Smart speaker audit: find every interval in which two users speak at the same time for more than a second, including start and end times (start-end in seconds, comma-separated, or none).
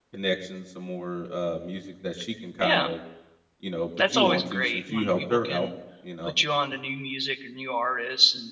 4.0-5.7